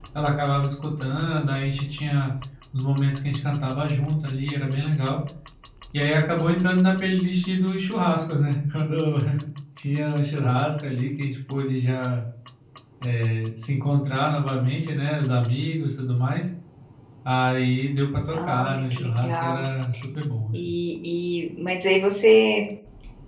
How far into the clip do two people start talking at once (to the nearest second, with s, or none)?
18 s